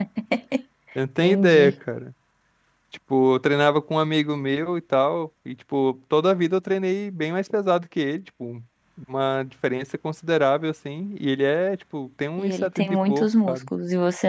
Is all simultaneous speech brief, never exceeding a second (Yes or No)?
No